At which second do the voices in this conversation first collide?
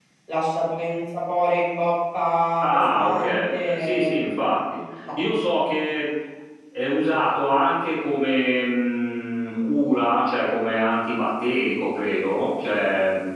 2.6 s

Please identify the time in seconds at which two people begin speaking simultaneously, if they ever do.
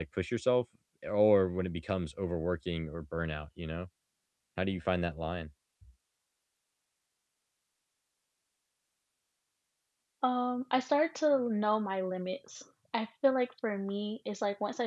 none

